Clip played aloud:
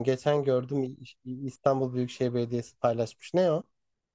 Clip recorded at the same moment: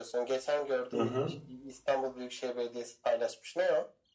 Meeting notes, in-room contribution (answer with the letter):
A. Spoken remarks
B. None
A